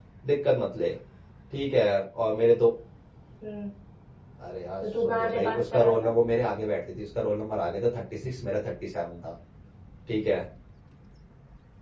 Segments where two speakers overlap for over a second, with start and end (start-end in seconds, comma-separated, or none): 4.8-6.1